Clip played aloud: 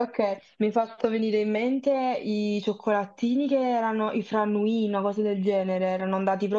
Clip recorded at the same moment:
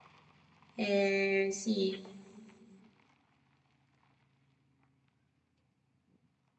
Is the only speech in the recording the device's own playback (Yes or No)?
No